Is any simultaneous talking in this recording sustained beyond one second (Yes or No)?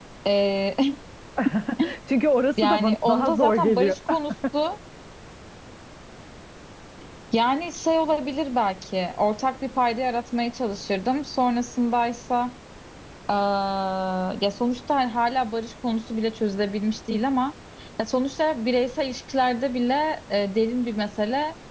Yes